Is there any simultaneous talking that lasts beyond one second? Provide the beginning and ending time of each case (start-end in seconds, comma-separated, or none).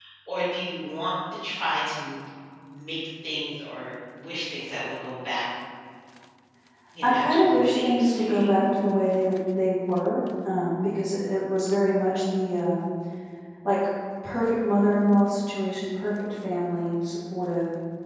7.0-8.5